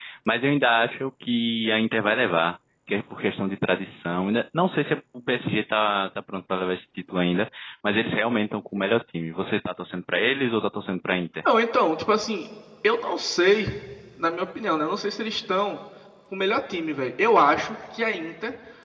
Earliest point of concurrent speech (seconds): none

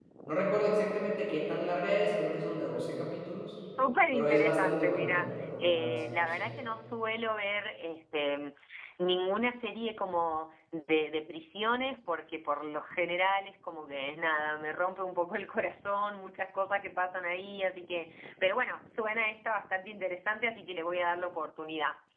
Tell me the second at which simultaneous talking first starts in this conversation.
4 s

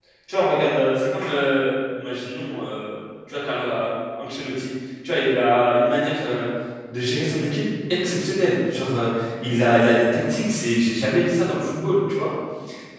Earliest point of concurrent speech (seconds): none

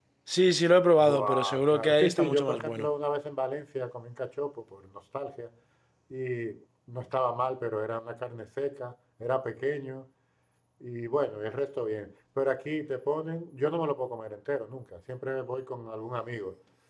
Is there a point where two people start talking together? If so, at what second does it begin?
1 s

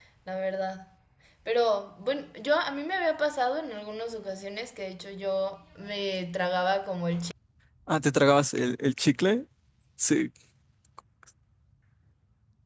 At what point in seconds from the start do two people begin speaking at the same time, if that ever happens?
none

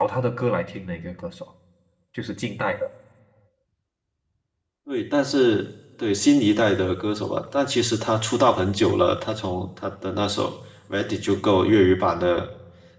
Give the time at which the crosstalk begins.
none

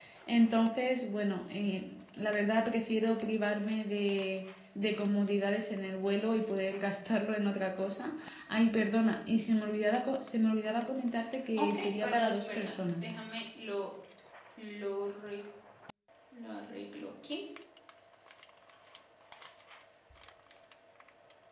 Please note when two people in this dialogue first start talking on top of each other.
12 s

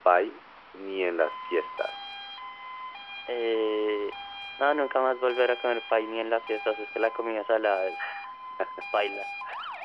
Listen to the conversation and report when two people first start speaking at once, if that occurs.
none

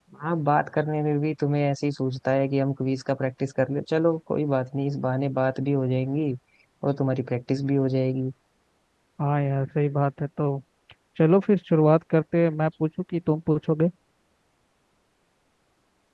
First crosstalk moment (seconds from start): none

